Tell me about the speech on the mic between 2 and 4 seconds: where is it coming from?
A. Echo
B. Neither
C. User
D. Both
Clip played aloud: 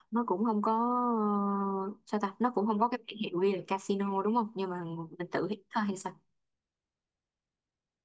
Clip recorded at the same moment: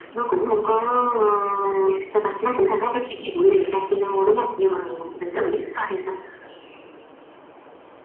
A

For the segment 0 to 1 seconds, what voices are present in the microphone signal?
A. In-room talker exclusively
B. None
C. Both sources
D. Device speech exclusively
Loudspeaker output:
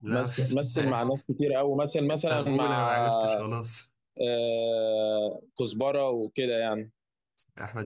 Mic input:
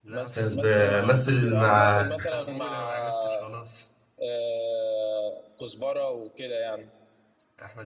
C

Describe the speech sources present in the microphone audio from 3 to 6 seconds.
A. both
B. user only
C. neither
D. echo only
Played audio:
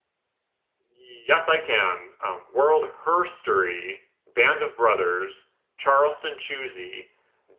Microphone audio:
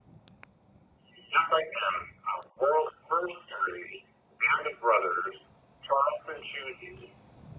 D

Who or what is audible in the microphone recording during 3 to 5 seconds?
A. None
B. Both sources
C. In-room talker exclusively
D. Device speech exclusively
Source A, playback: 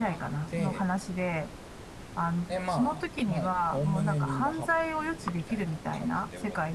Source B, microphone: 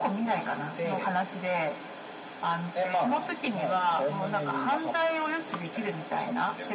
D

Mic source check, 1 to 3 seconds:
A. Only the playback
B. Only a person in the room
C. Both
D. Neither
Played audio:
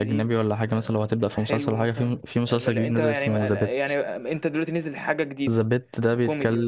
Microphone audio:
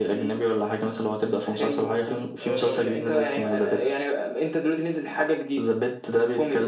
C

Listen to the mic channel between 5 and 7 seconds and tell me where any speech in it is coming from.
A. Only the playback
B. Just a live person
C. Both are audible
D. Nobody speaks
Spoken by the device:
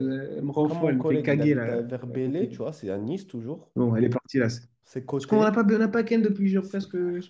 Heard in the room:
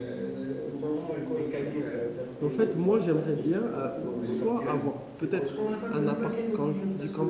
C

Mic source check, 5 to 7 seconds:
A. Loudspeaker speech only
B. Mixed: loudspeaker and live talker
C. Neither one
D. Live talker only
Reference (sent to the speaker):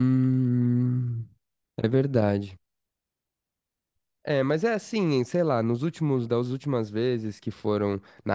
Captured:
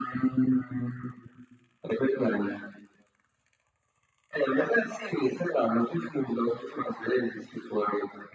A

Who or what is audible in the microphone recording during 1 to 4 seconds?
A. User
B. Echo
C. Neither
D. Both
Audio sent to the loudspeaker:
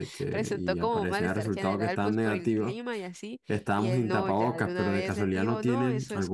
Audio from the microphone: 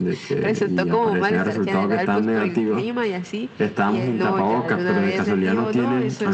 B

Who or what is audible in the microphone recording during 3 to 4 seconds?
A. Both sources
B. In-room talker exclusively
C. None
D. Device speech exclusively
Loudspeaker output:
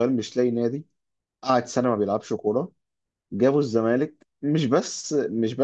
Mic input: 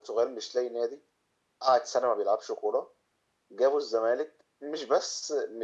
D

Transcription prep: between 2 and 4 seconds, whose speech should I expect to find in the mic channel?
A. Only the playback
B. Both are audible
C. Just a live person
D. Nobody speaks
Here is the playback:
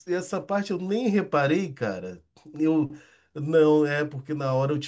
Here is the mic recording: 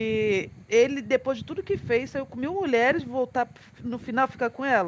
C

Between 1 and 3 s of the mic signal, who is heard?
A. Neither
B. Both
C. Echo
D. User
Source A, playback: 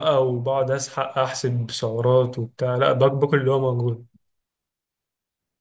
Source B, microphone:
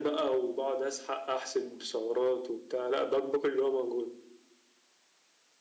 C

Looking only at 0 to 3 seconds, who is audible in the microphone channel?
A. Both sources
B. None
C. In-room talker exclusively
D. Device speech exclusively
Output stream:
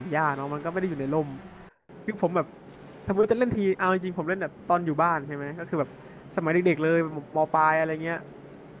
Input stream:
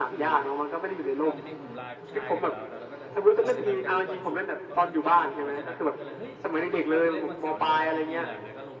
A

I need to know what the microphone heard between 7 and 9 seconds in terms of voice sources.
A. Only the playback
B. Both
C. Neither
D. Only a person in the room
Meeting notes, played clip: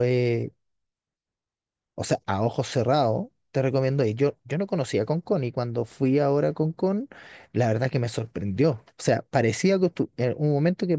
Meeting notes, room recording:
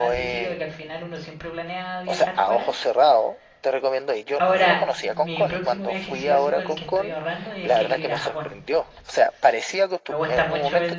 B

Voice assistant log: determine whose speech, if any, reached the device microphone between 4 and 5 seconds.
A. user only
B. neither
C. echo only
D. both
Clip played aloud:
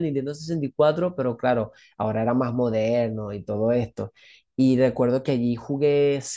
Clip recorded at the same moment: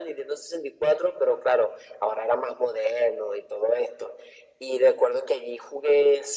C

